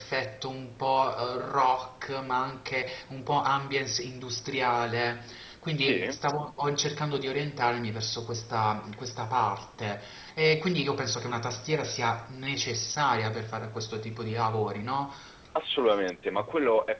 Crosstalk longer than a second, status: none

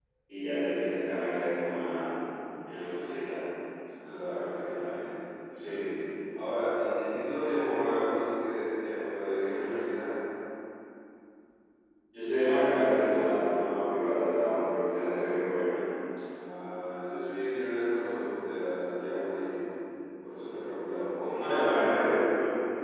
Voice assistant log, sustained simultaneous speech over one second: none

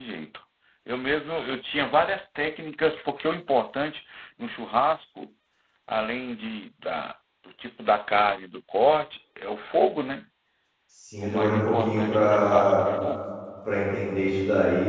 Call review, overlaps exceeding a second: present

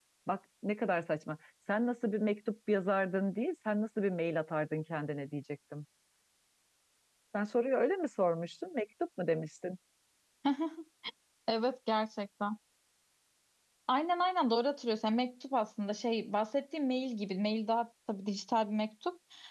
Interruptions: none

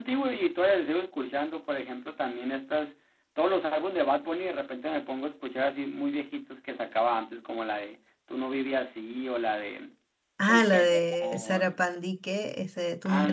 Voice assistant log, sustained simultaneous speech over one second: present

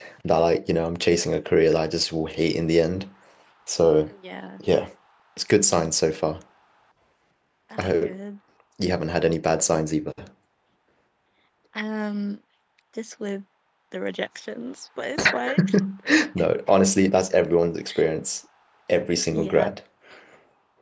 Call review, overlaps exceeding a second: none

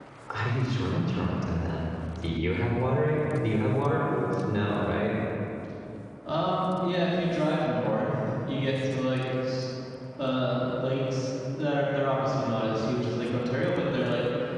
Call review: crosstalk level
none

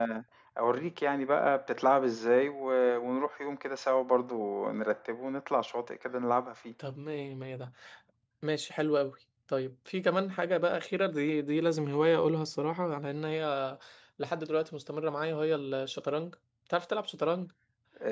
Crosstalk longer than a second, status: none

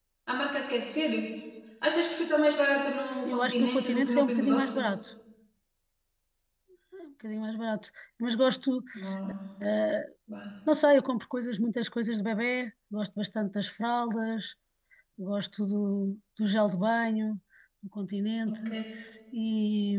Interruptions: present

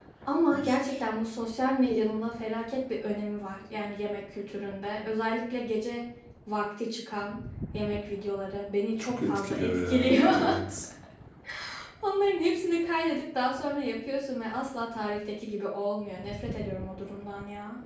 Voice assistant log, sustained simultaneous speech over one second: present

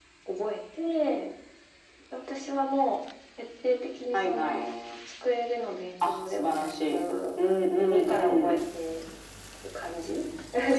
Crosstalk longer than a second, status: present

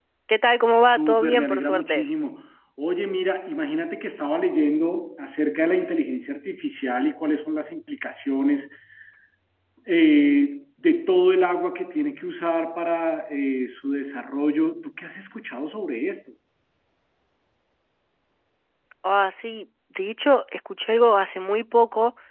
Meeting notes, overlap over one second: present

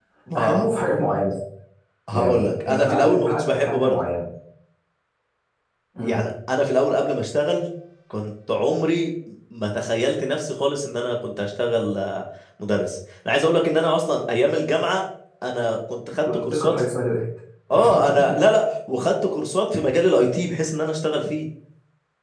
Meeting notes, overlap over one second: present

